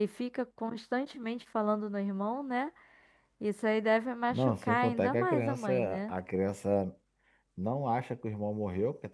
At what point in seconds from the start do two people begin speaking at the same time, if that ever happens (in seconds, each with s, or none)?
4.3 s